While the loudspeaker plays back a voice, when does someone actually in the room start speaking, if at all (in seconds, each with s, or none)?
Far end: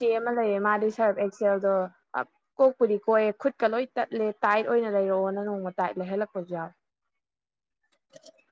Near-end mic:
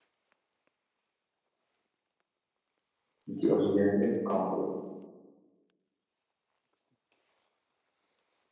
3.3 s